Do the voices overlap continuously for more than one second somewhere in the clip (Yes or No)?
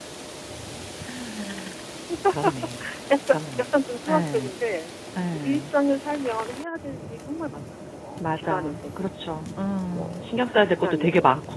Yes